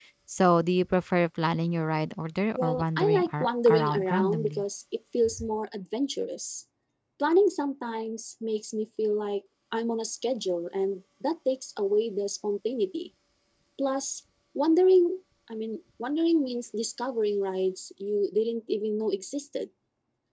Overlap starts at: 3 s

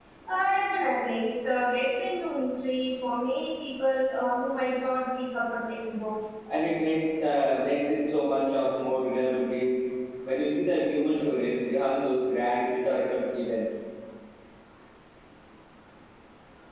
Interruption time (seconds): none

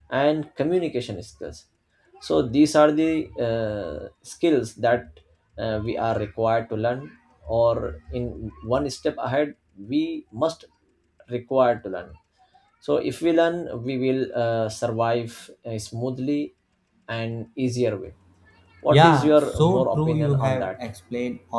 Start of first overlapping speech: 19 s

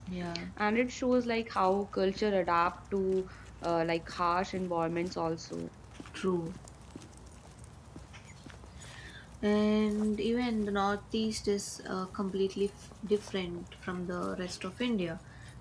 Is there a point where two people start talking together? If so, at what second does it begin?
none

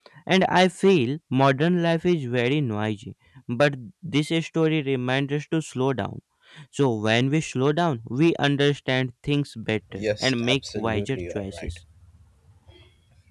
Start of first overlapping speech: 10 s

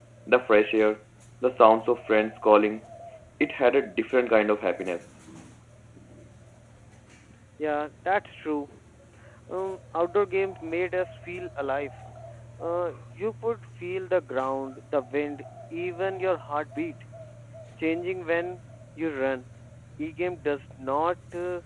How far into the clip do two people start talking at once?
none

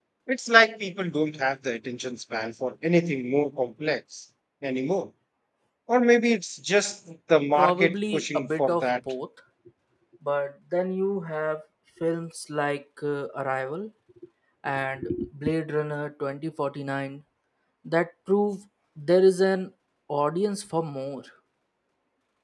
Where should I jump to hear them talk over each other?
8 s

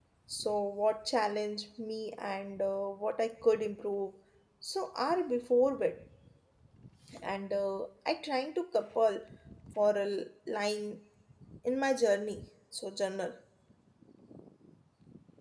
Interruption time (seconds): none

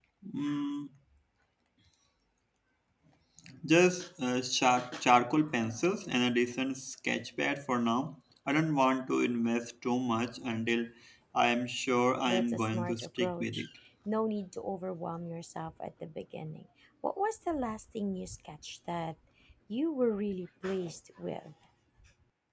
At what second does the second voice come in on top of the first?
12 s

